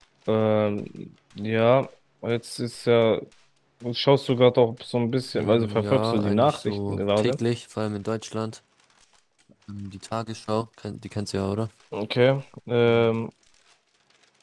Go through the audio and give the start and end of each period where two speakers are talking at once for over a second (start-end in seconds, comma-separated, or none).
5.3-7.4